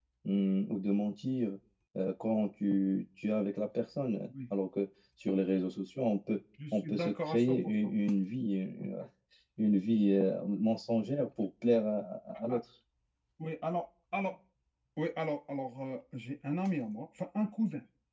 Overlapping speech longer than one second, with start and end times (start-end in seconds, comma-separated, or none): 6.7-7.9